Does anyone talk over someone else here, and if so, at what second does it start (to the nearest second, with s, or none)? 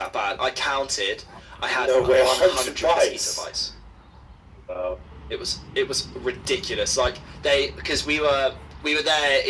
2 s